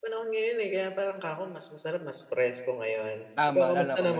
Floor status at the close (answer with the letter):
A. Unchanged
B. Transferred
B